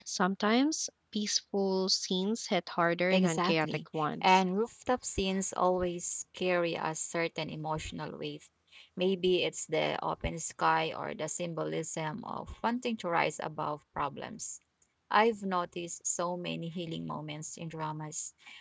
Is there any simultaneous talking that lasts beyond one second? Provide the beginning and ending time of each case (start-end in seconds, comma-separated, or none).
3.1-4.4